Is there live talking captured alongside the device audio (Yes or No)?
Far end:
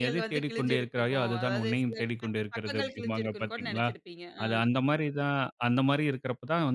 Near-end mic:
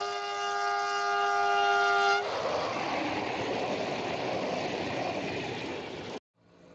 No